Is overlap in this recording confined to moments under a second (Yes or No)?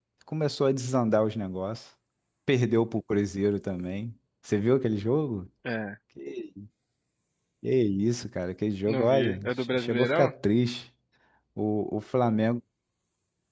No